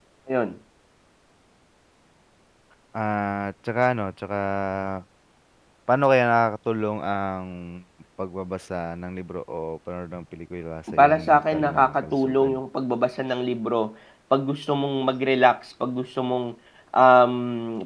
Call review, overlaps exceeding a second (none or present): present